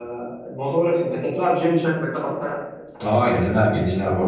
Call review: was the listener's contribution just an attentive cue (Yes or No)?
No